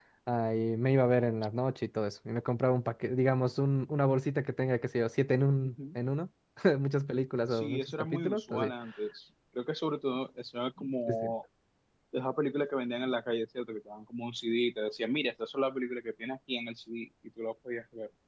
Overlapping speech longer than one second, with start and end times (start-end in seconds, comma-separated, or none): 7.5-8.7